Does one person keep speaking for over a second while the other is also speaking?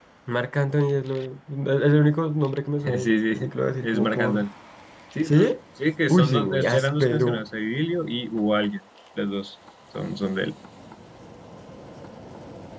Yes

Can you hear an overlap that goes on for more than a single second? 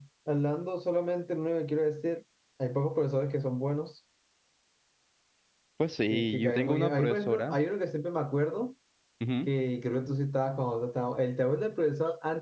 Yes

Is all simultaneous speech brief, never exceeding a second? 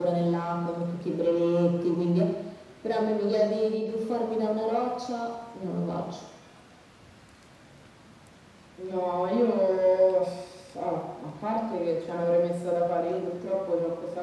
Yes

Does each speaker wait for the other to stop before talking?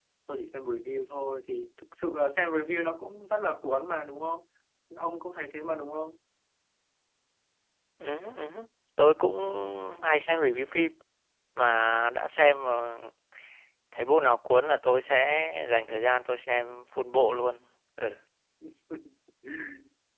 Yes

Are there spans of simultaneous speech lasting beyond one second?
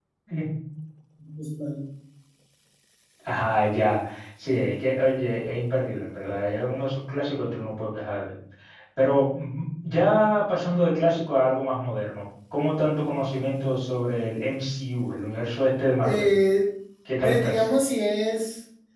No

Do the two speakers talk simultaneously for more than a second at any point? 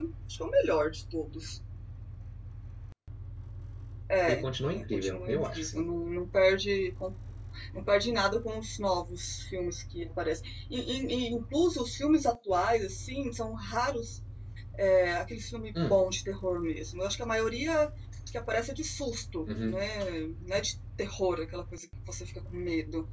Yes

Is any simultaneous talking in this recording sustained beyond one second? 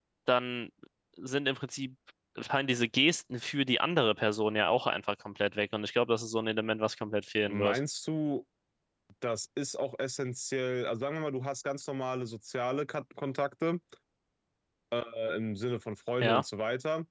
No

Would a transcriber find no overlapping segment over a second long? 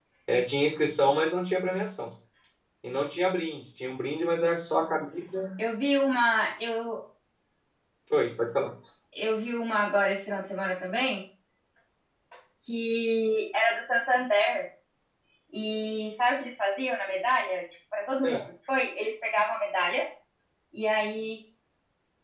Yes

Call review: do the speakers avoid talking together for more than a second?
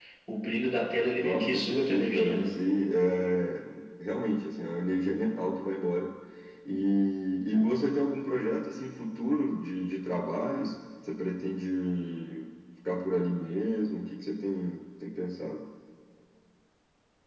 No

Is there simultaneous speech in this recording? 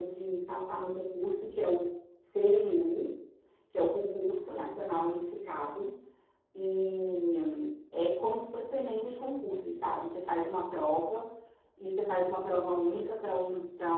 No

